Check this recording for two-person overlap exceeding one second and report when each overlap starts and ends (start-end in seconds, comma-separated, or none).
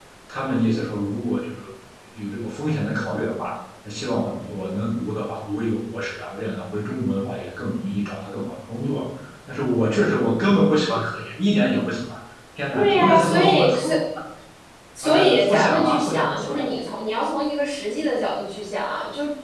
12.8-14.0, 15.0-16.6